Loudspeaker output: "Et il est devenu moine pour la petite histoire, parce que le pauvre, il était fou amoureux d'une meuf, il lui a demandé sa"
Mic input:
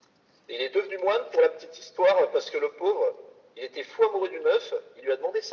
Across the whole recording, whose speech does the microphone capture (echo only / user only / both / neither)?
echo only